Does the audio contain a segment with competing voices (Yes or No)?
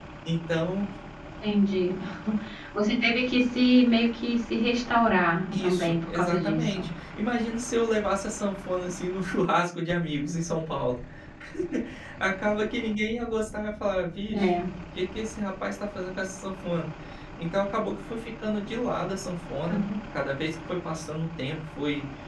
Yes